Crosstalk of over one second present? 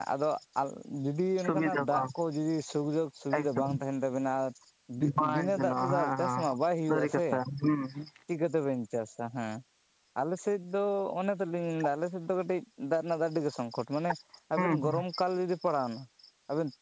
Yes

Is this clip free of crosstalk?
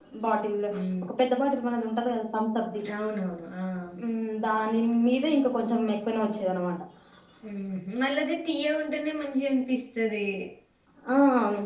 Yes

